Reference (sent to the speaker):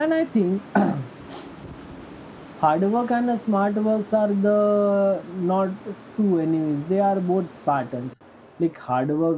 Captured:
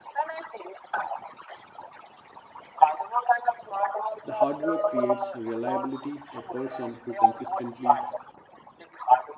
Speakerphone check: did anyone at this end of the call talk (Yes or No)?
Yes